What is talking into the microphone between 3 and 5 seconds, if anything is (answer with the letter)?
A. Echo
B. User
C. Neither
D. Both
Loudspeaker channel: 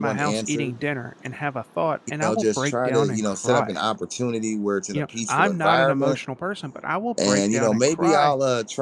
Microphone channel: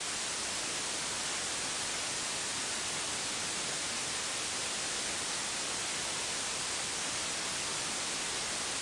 C